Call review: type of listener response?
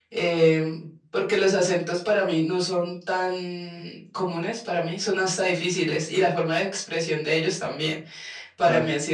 listening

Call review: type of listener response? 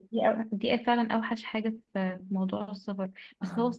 listening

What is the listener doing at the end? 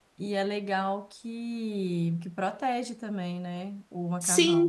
taking over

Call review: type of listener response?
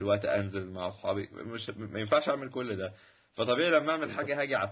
listening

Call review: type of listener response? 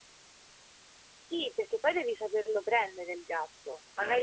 listening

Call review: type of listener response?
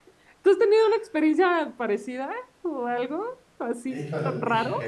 taking over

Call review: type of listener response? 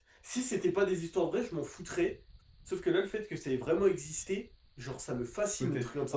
taking over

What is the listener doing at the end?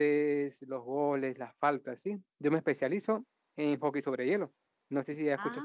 taking over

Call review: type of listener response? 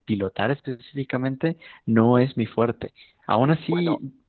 listening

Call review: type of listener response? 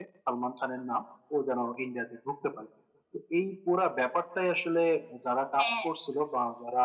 listening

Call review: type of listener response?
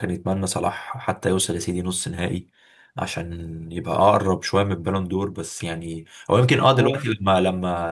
listening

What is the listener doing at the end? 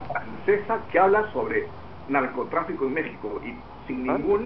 listening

